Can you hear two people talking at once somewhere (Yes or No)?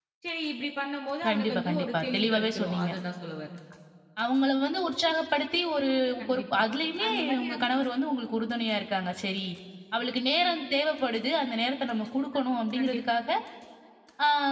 Yes